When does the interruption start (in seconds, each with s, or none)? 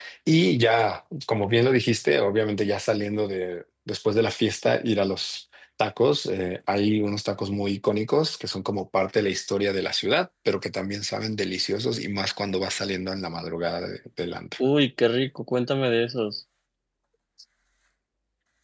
none